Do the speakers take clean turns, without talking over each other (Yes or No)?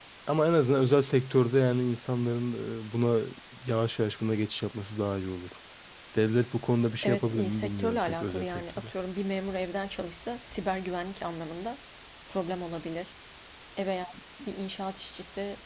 No